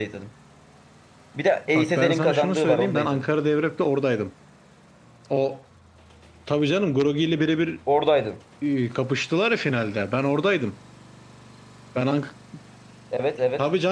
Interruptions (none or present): present